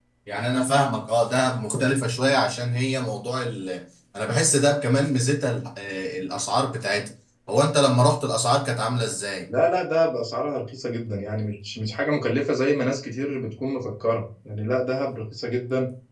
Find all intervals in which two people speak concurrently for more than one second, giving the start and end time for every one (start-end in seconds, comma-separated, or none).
none